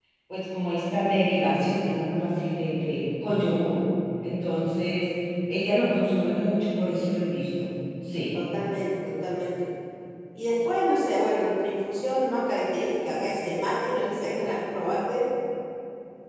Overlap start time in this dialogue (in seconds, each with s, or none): none